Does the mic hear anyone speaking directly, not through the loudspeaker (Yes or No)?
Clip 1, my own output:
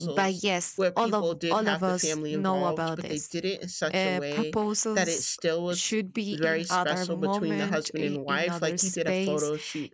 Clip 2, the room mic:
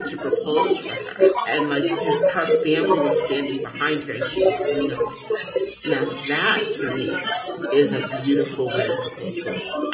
Yes